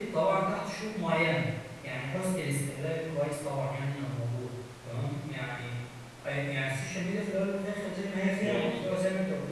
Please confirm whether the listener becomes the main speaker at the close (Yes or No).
No